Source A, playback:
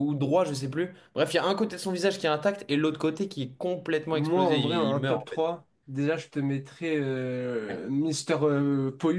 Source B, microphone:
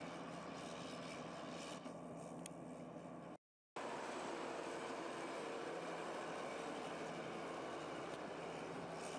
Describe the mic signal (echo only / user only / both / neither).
neither